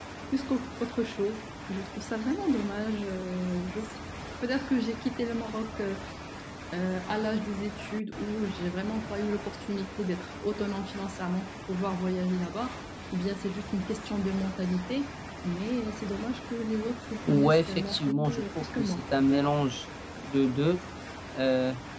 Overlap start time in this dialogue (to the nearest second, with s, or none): 17 s